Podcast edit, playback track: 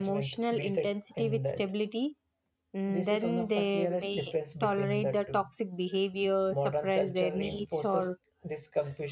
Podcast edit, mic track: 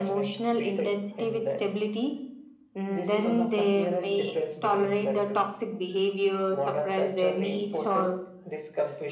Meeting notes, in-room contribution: none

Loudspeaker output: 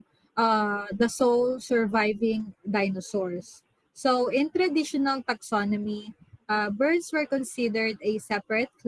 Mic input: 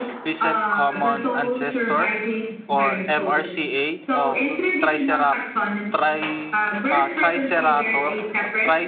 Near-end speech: present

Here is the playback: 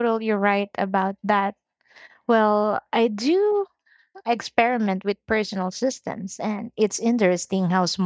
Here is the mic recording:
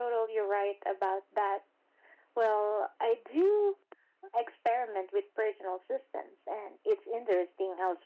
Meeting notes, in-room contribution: none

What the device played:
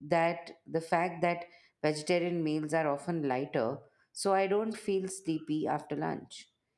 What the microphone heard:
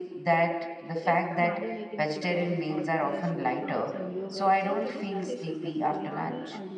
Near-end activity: present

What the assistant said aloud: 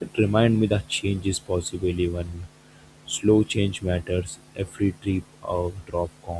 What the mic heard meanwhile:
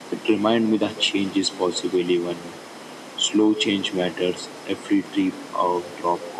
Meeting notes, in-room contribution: none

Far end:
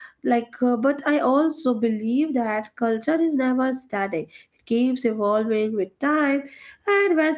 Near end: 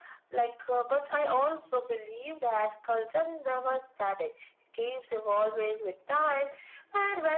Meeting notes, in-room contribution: none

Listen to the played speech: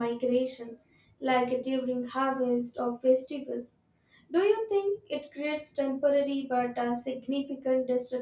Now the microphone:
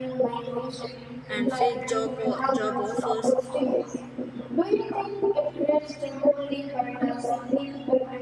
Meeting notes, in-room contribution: present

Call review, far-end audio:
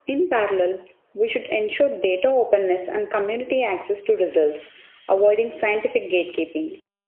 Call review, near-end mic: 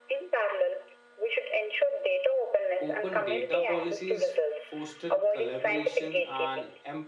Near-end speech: present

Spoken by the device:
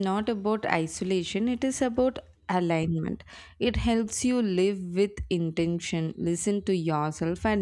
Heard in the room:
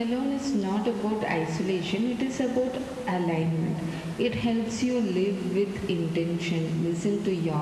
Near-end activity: none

